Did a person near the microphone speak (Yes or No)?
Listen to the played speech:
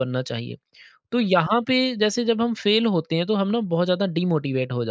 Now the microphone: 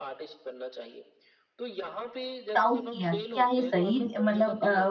Yes